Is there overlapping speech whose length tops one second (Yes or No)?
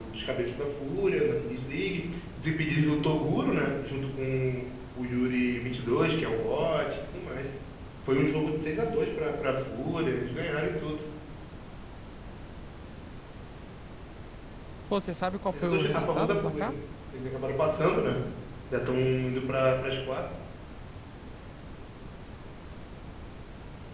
Yes